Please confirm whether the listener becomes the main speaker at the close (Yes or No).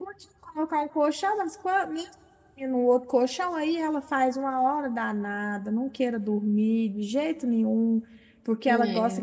No